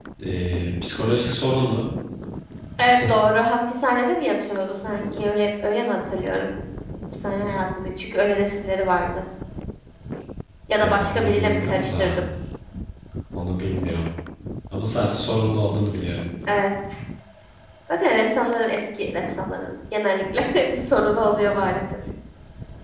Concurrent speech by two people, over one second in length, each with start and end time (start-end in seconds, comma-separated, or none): 10.8-12.2